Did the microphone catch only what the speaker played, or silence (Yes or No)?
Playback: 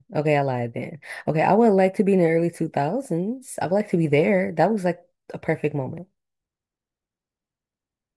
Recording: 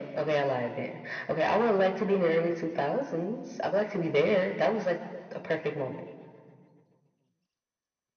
Yes